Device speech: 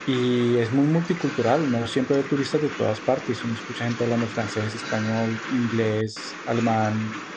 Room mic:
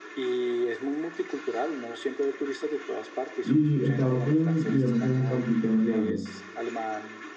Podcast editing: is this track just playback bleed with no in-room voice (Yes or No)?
No